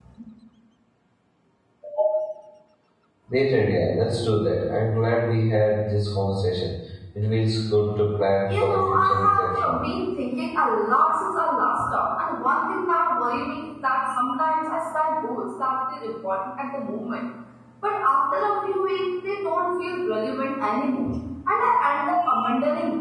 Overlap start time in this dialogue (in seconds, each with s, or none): 8.5 s